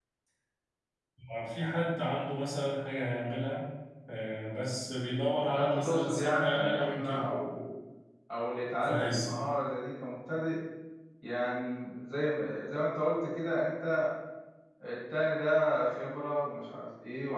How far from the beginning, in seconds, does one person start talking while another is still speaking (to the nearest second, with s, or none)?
6 s